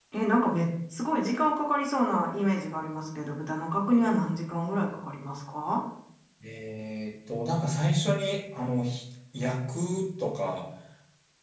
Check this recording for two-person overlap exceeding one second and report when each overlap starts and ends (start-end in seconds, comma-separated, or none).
none